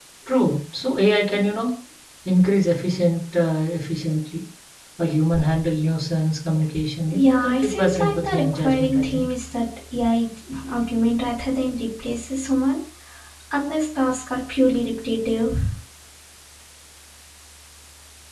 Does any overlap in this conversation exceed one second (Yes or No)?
Yes